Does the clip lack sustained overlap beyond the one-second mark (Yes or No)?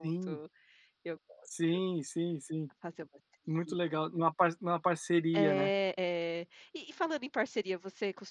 Yes